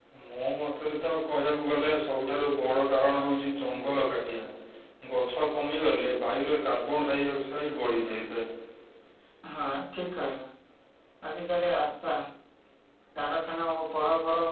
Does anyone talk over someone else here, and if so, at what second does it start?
none

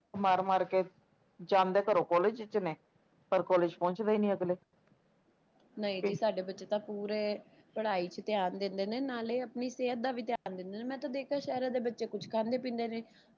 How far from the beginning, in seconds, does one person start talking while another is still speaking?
none

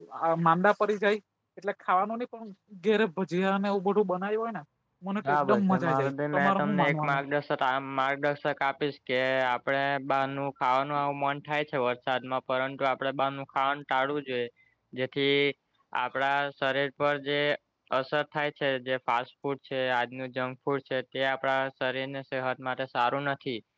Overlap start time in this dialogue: 5.3 s

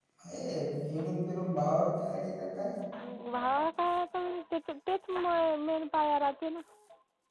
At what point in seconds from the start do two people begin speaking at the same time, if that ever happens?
none

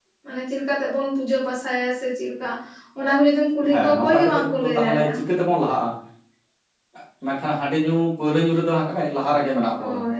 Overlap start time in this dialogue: 3.7 s

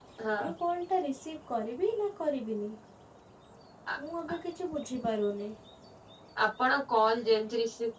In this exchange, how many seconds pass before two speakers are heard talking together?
none

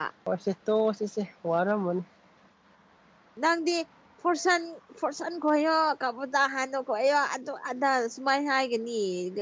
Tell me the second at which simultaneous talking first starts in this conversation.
none

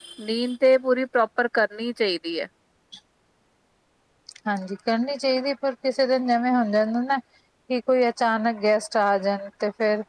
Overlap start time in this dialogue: none

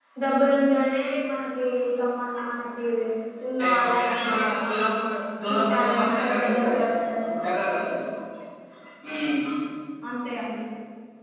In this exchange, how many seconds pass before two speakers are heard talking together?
3.6 s

